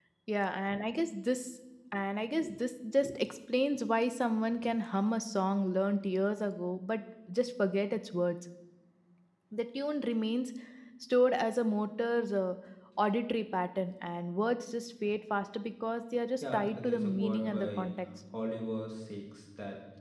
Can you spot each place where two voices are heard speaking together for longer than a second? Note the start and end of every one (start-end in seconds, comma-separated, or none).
16.4-17.9